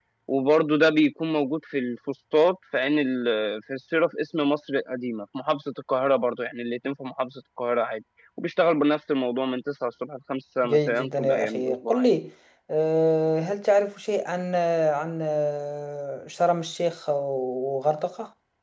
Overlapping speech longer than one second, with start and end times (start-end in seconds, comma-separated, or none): 10.7-12.1